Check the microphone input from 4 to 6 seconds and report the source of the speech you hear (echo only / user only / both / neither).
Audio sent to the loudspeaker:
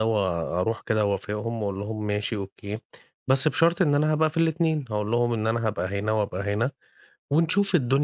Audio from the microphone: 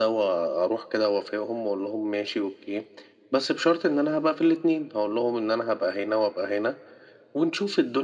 echo only